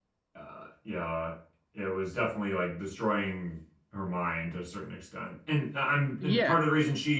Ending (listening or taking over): listening